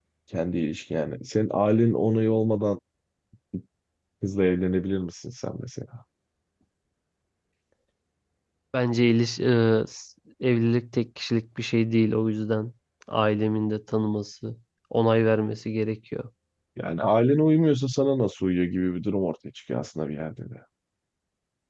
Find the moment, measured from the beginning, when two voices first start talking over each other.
none

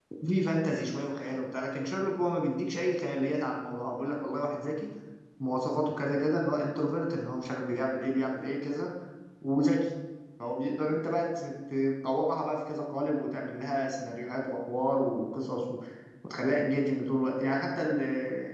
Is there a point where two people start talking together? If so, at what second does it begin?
none

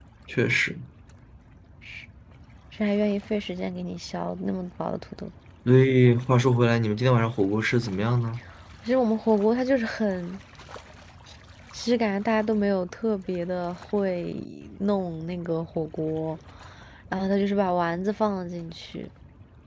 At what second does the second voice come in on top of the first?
none

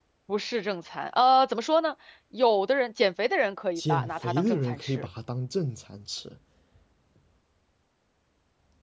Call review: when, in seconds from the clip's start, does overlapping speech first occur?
4 s

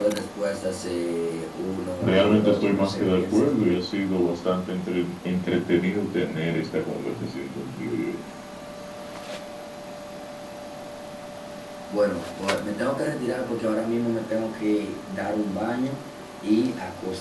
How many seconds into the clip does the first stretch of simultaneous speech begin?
2 s

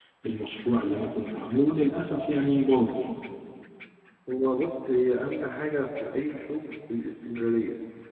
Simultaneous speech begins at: none

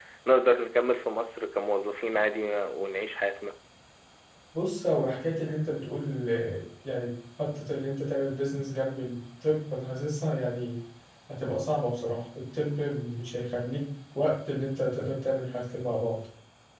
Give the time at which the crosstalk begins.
none

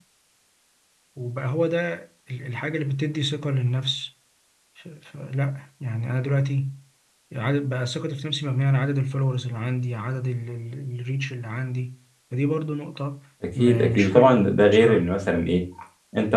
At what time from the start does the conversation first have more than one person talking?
14 s

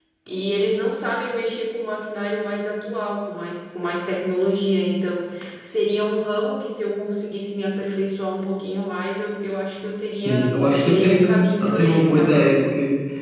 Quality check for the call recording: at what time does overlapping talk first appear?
10 s

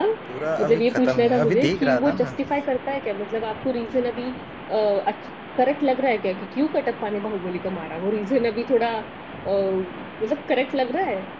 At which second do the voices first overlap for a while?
1 s

